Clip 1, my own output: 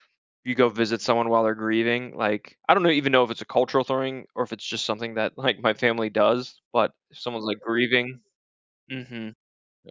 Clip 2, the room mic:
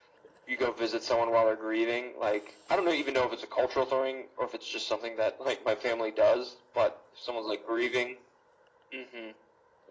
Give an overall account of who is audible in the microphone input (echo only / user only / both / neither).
echo only